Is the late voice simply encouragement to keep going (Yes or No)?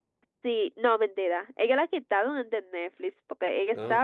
Yes